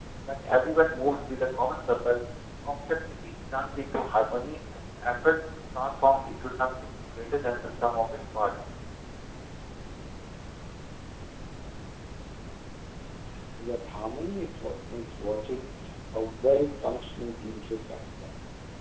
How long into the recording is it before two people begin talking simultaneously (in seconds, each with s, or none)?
none